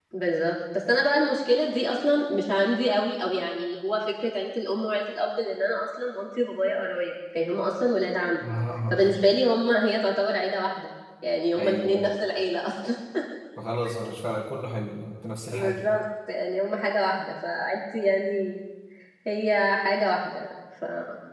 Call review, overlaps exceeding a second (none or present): none